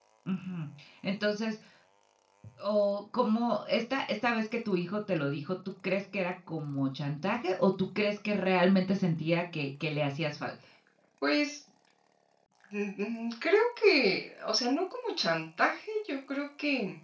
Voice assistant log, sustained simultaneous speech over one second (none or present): none